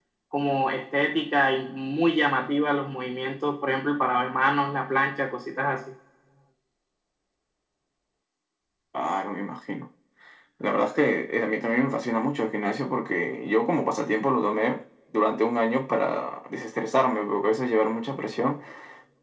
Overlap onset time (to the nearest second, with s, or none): none